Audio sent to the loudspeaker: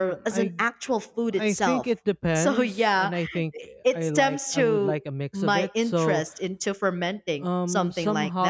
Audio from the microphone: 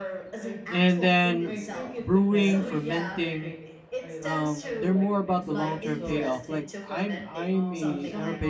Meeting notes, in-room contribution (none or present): present